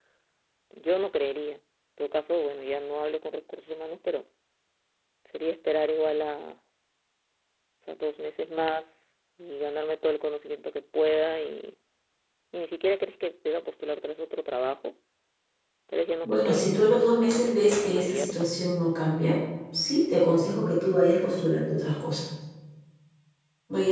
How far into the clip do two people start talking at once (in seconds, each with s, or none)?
16.2 s